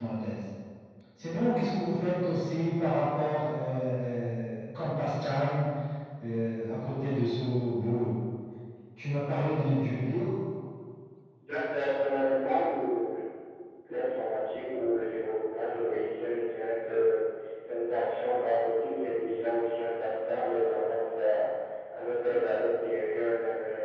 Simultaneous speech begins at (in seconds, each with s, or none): none